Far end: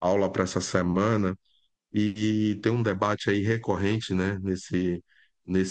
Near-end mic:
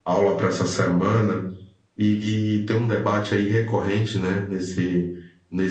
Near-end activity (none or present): none